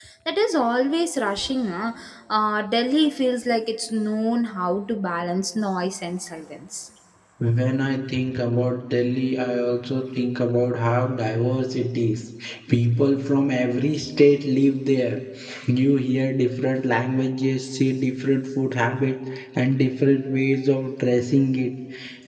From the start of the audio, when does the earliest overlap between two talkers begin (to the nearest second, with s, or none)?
none